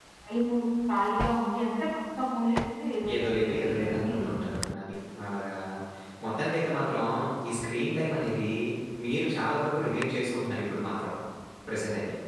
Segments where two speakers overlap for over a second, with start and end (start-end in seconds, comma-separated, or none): 3.1-4.4